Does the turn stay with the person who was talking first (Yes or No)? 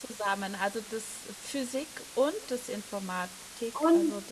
No